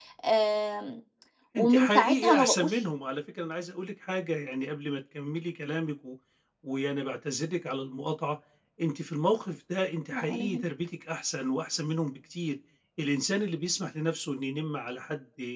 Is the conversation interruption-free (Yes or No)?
No